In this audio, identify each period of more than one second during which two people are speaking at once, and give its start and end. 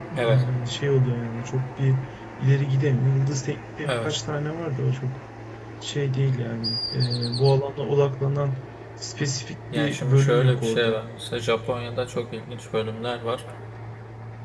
9.8-11.0

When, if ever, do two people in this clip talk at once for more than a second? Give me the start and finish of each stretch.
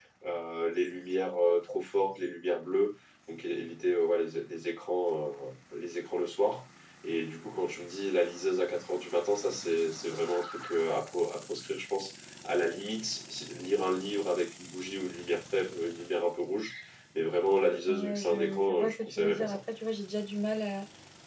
17.9-19.6

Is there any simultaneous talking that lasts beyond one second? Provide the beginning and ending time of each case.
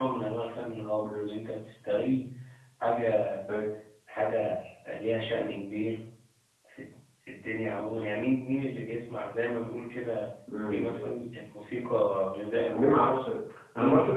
none

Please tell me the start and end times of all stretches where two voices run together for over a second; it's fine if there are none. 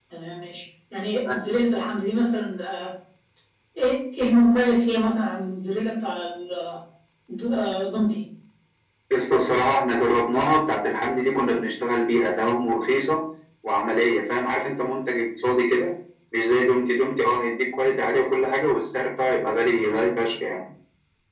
none

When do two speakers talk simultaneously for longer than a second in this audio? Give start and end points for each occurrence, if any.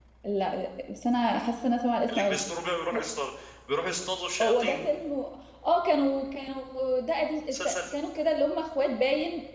none

